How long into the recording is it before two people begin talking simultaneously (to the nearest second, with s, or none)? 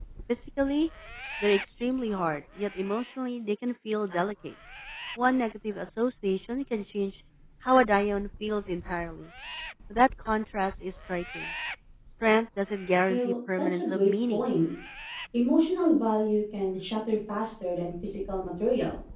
13 s